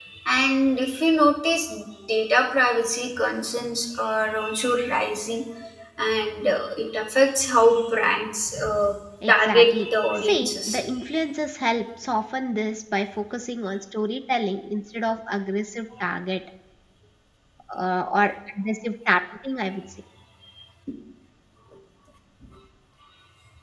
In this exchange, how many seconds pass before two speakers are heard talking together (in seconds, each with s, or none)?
9.2 s